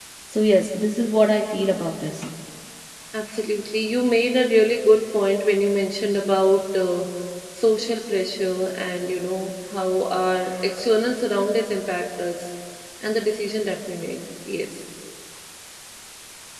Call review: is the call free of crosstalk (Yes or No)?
Yes